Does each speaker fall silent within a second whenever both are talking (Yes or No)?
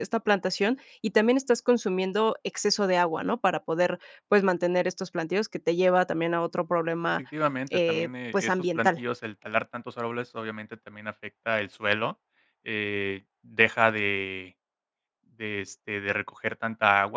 No